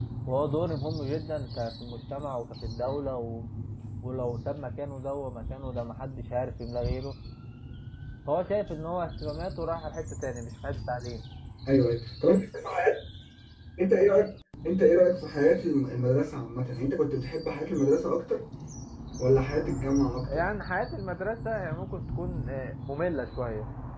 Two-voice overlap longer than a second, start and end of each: none

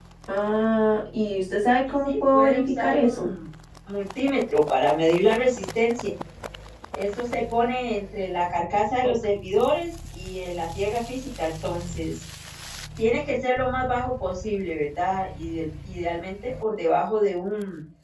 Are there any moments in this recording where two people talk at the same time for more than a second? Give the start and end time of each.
1.8-3.3

